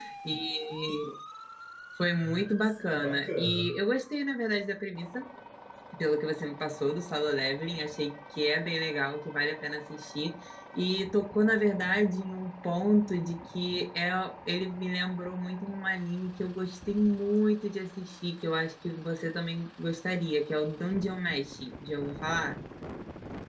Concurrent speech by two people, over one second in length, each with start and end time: 2.2-3.7

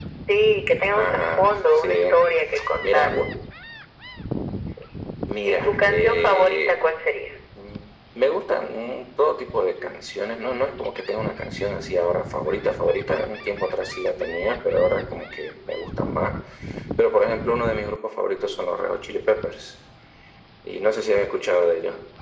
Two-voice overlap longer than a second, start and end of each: 0.9-2.2, 5.5-6.7

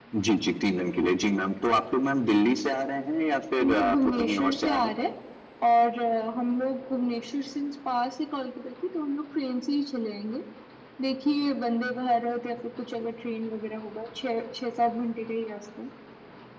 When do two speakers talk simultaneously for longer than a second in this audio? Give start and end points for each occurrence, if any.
3.6-4.9

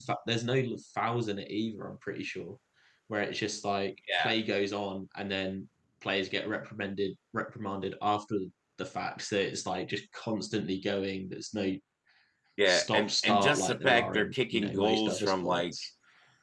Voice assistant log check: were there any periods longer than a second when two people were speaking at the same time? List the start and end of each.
12.7-15.7

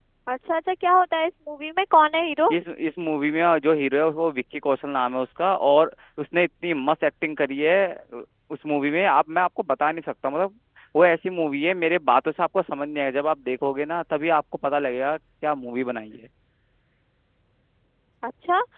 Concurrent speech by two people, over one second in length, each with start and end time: none

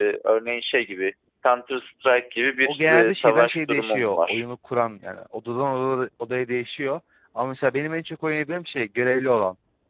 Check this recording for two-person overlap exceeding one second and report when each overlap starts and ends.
2.6-4.4

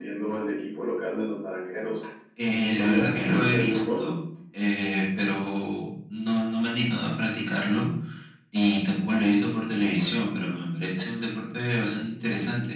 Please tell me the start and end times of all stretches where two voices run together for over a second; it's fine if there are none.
2.7-4.0

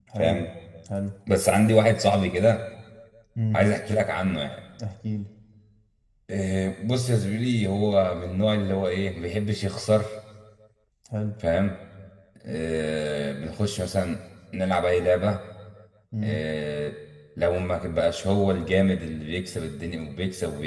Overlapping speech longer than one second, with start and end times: none

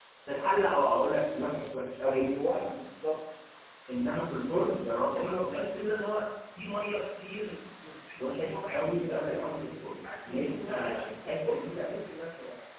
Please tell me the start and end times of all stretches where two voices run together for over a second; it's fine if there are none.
8.2-9.6, 10.2-11.9

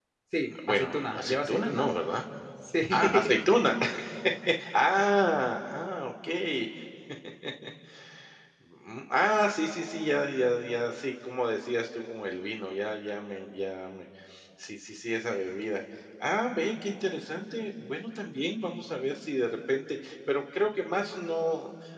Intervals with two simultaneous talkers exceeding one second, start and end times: 0.7-1.9

